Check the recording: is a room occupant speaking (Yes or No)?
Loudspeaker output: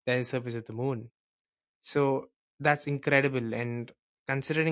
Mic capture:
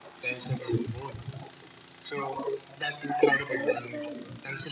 Yes